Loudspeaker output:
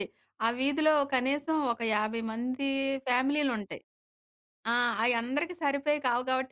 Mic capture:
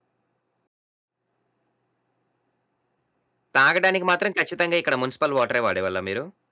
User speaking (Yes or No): Yes